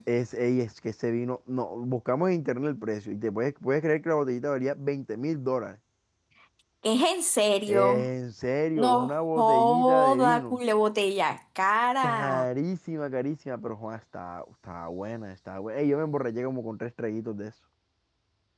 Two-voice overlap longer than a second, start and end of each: 8.8-10.6

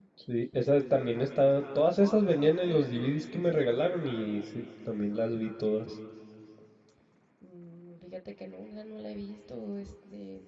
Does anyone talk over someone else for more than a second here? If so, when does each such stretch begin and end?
none

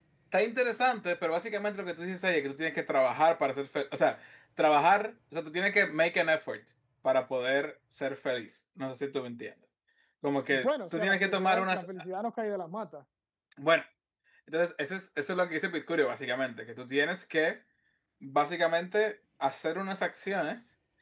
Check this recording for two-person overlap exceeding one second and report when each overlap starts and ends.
10.5-11.9

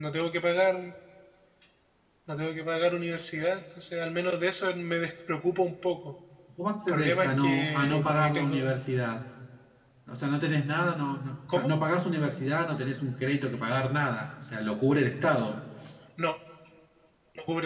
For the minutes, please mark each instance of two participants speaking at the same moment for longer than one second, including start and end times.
6.9-8.8

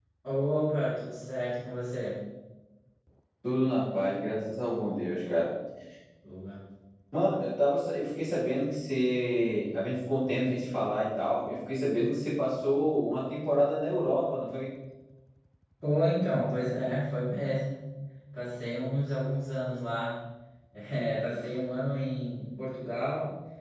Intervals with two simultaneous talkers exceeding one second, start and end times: none

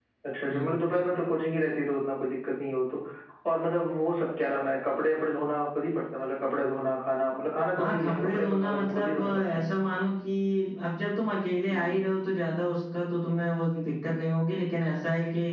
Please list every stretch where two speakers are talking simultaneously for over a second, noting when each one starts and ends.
7.8-9.7

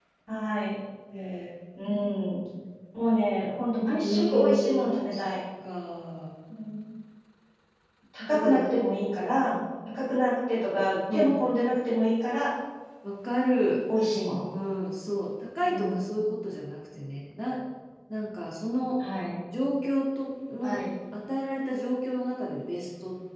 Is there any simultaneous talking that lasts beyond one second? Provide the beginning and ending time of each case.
4.0-5.2

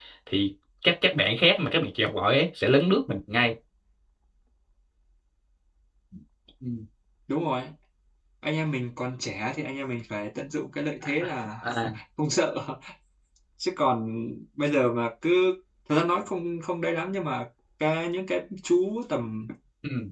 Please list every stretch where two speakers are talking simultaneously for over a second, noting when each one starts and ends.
none

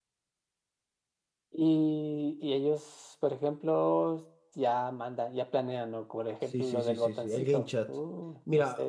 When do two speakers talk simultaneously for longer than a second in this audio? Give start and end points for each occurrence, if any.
6.6-7.9

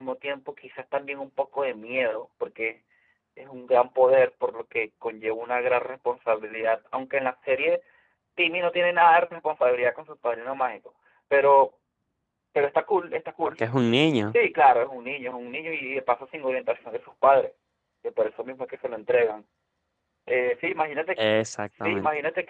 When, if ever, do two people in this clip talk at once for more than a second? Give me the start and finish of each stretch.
none

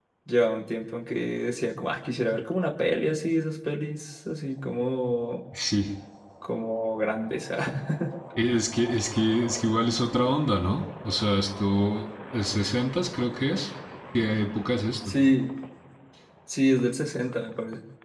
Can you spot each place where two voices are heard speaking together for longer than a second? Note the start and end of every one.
none

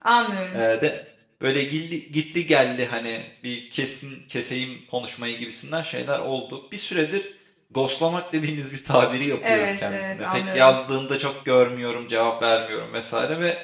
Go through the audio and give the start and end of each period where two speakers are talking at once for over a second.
9.4-10.8

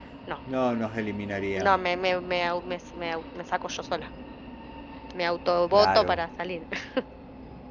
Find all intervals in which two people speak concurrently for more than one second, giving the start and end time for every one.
none

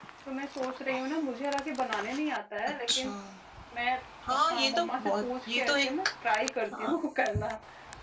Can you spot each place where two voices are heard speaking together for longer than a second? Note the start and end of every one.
4.5-5.9

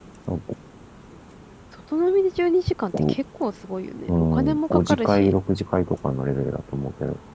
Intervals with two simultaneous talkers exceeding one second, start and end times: 4.1-5.3

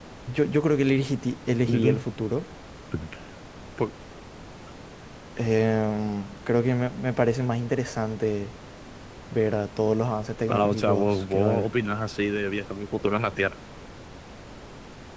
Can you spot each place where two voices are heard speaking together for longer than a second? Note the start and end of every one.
10.5-11.7

